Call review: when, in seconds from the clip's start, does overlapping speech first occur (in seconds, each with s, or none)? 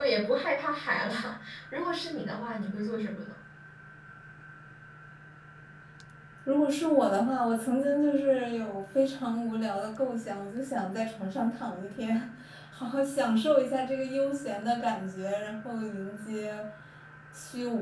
none